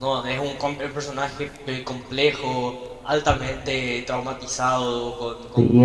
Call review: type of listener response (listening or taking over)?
taking over